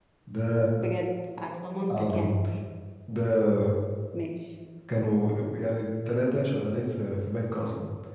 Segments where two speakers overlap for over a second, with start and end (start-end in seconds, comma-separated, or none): none